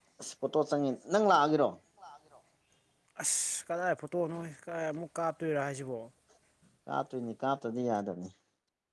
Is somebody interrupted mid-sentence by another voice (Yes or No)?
No